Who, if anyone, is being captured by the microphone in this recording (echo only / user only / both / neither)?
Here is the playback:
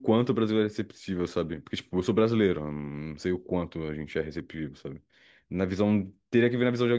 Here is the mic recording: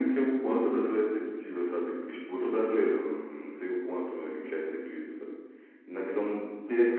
echo only